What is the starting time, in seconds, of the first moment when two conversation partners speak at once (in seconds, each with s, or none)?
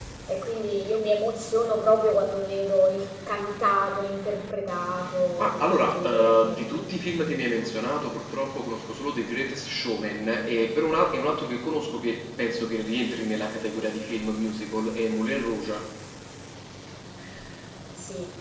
5.4 s